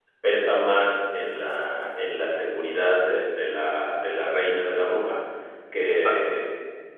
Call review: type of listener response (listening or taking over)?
listening